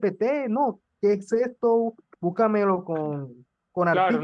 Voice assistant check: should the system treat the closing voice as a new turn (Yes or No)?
Yes